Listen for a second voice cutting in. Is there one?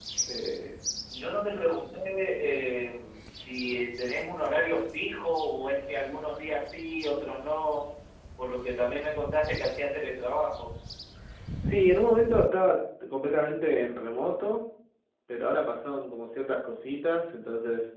No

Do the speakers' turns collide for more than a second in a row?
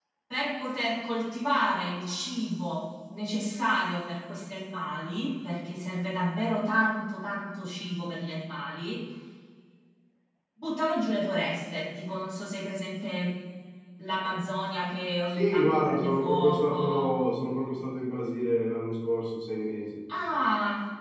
Yes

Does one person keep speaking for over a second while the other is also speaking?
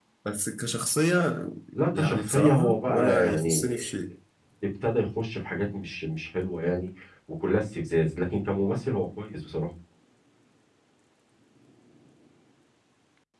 Yes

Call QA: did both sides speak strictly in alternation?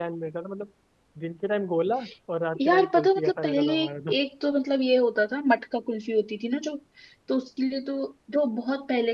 No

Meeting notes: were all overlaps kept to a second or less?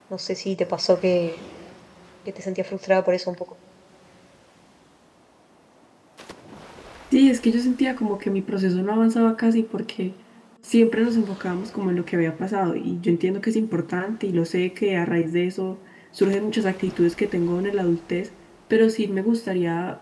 Yes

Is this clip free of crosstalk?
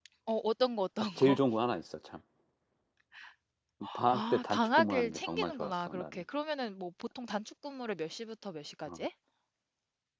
No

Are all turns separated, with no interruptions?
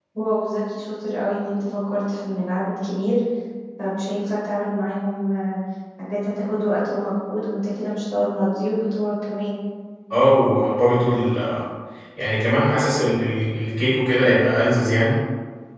Yes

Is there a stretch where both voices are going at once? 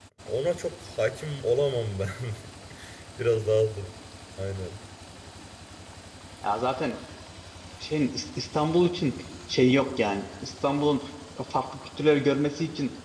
No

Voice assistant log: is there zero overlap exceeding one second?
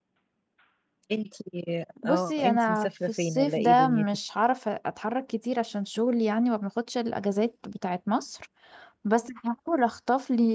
No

